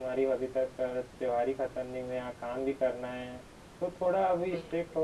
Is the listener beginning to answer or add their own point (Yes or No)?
No